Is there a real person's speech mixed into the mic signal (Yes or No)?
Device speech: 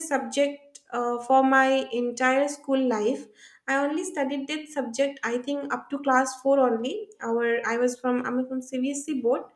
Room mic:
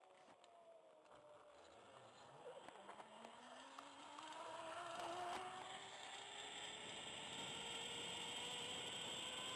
No